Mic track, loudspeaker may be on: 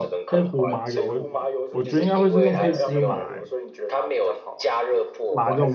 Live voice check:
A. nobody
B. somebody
B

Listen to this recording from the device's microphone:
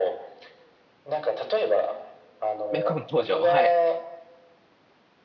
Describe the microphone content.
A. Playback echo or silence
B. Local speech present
B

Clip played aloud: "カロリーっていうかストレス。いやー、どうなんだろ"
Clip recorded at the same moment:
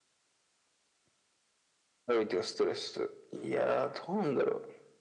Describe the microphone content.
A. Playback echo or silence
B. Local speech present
A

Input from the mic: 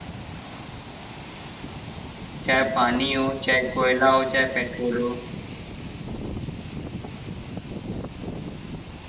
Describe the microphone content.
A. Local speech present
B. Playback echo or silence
A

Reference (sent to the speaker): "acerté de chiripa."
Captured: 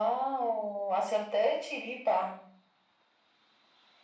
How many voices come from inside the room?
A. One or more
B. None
B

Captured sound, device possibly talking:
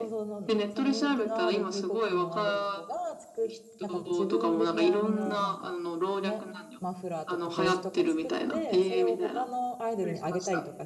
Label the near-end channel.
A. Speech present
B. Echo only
A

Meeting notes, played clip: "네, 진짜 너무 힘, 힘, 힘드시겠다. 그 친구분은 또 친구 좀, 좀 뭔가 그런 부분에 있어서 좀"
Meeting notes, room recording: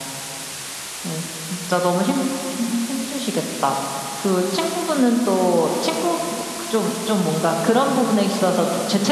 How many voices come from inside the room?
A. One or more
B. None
B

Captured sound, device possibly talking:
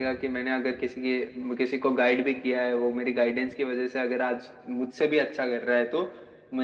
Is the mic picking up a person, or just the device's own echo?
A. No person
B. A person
A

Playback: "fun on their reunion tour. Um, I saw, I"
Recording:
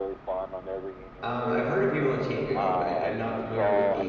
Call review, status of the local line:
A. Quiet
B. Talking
B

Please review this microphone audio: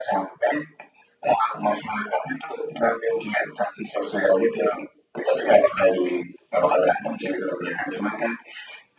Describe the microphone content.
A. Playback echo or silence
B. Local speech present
A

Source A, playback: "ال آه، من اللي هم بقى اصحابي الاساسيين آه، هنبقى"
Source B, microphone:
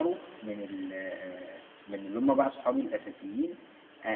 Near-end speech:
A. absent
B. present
A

